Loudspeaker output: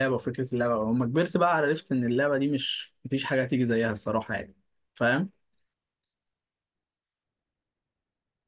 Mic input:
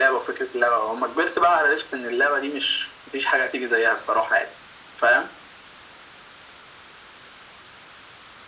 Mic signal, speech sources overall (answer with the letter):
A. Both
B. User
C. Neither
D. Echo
D